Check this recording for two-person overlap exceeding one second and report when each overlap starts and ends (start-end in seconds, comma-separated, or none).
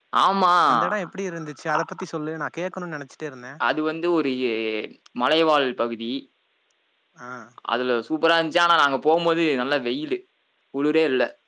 none